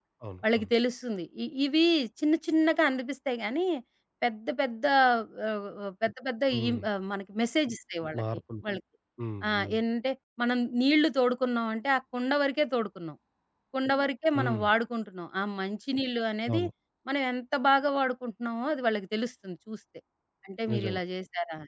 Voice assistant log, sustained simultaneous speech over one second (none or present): none